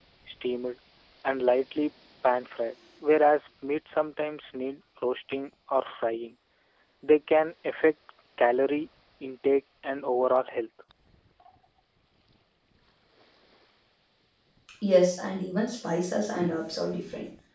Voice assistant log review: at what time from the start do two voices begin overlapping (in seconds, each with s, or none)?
none